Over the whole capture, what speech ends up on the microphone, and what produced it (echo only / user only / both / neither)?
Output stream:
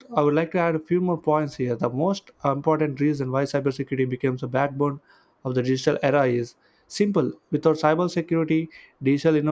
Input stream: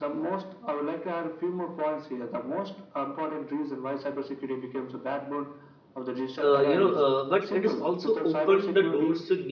both